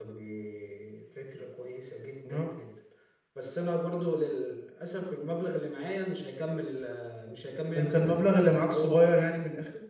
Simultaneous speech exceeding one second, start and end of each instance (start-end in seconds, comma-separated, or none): 7.8-9.4